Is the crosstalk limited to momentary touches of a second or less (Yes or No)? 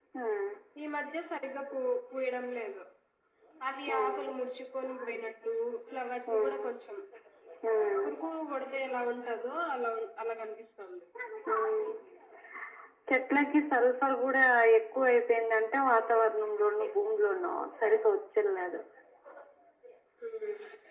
Yes